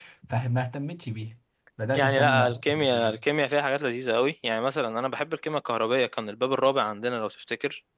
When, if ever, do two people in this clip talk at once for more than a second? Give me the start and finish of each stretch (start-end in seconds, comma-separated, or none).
1.9-3.2